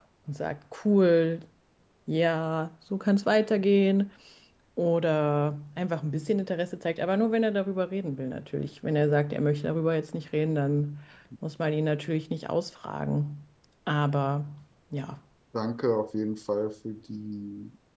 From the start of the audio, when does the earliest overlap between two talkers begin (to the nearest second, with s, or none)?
none